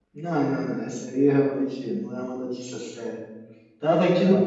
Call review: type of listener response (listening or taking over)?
listening